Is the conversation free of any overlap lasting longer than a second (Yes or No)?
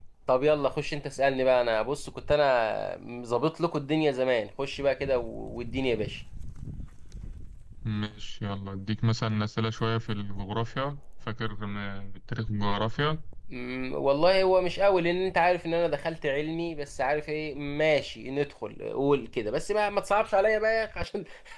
Yes